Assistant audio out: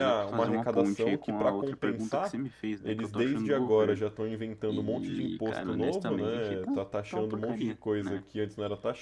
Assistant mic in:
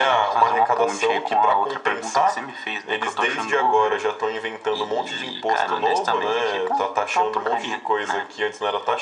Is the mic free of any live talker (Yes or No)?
Yes